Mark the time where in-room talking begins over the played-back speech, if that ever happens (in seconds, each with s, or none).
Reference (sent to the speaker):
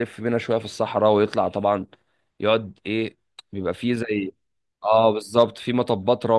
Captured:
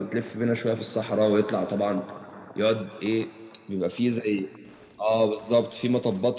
none